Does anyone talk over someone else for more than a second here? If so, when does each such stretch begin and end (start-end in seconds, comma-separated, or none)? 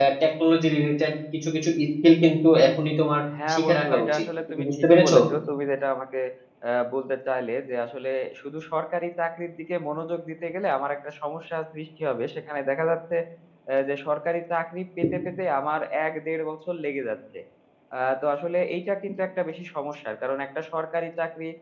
3.5-5.2